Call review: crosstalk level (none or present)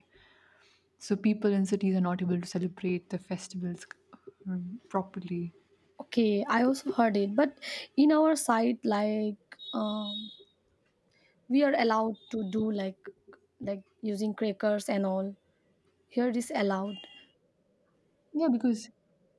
none